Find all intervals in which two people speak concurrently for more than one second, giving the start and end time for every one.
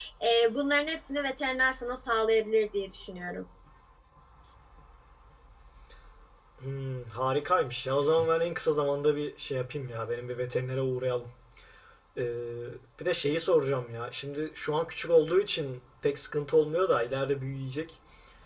none

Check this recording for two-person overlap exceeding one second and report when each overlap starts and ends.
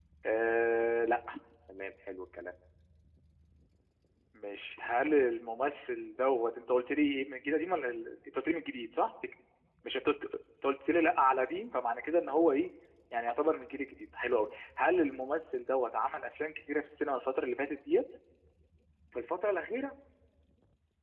none

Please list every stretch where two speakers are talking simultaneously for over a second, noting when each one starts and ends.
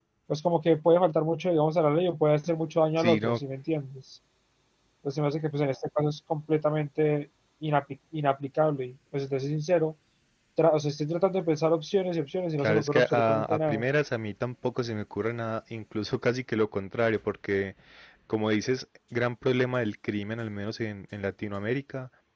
12.6-13.8

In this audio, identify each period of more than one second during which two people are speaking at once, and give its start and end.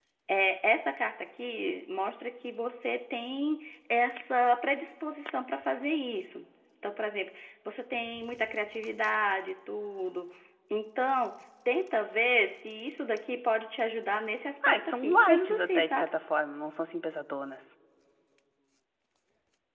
14.6-16.1

